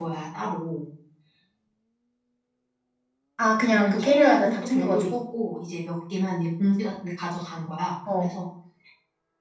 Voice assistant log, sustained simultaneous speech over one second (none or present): present